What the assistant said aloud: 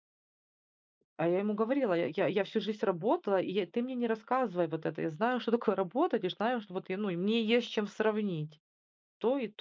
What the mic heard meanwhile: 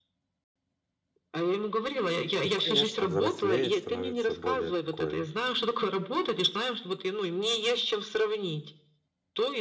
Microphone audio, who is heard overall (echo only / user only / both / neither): both